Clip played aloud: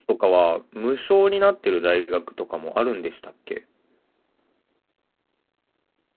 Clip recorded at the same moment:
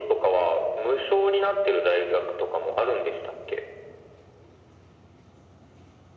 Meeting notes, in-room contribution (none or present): none